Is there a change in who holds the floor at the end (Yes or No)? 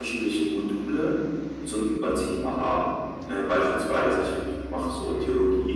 No